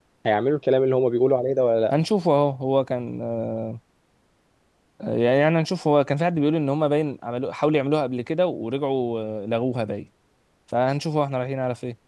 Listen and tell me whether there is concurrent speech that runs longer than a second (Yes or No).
No